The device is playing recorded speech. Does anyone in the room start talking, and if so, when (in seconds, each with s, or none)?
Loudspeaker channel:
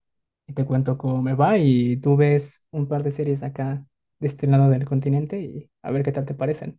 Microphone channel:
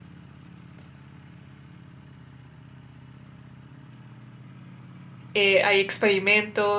5.3 s